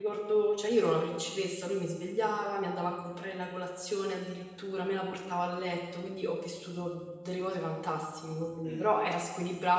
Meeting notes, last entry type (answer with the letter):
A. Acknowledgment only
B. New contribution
A